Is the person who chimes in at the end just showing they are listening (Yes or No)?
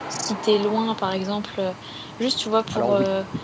Yes